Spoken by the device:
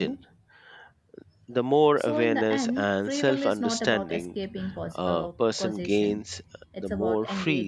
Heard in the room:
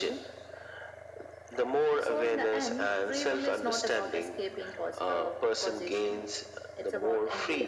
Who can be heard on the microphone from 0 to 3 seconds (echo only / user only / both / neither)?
echo only